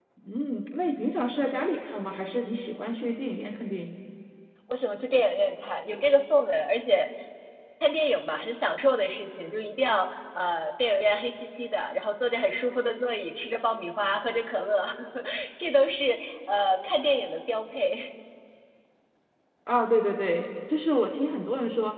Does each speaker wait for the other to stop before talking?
Yes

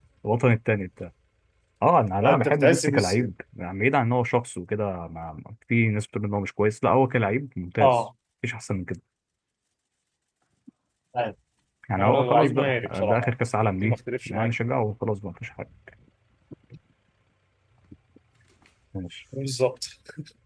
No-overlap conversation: No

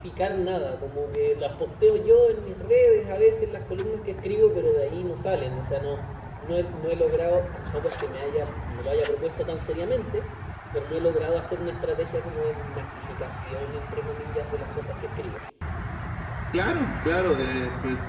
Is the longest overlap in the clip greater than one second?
No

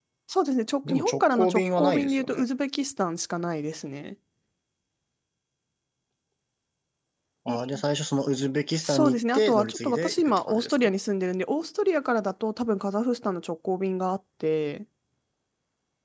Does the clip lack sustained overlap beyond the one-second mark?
No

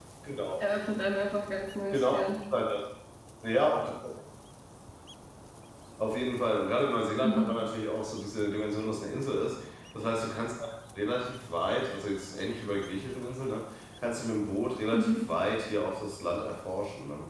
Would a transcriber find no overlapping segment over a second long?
Yes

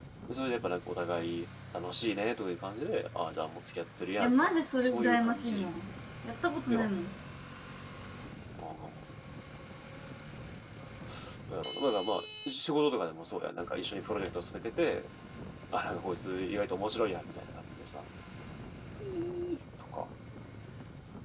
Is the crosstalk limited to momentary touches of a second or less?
No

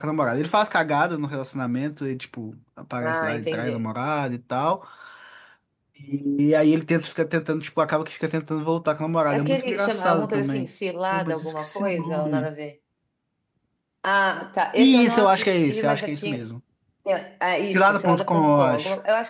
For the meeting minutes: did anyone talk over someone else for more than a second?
Yes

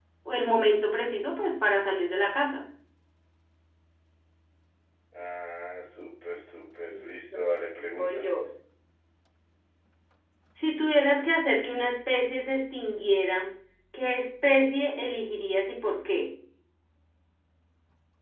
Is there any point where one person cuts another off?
Yes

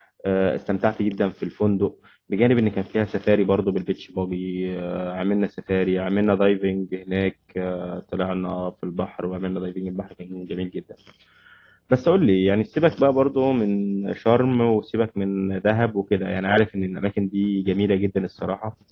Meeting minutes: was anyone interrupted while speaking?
No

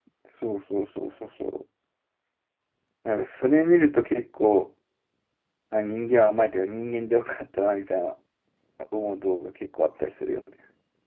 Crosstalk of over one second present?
No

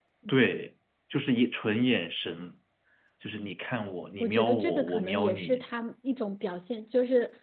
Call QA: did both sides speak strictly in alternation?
No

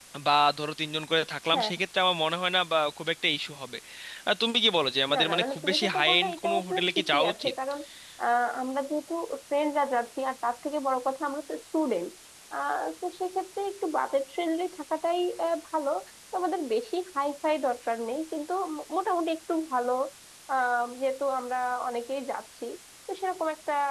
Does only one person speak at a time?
No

